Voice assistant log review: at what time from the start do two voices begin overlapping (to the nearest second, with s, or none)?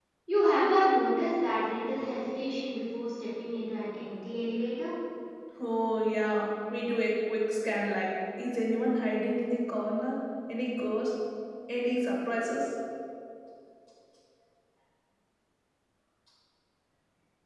none